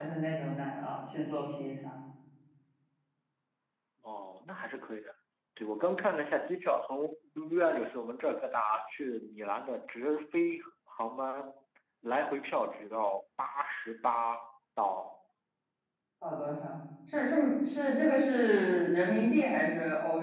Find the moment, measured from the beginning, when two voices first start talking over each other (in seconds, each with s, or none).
none